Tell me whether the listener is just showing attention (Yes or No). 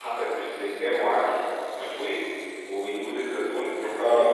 Yes